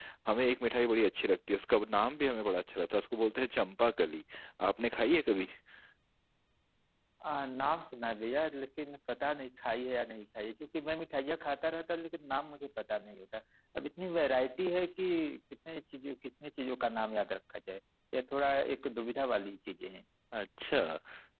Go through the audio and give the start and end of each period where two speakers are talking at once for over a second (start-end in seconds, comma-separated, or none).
none